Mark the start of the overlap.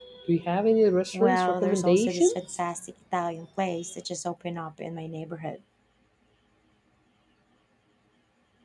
1 s

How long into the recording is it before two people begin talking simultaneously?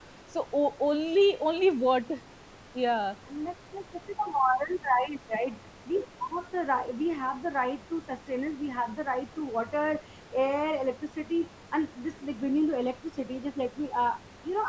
none

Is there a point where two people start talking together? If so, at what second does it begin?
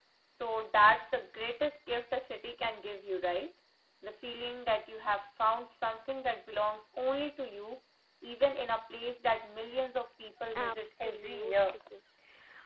11 s

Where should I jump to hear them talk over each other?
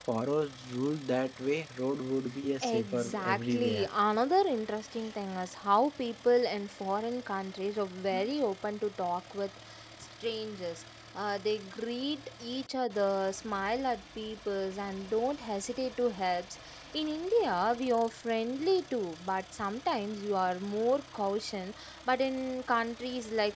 3 s

